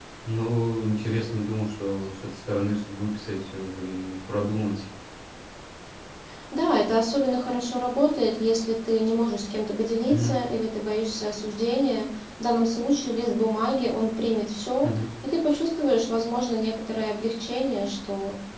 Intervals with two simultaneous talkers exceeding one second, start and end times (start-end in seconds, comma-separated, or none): none